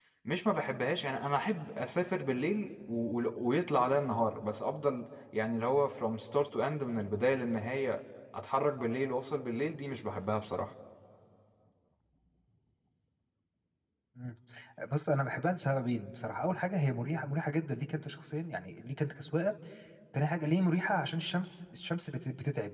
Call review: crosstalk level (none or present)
none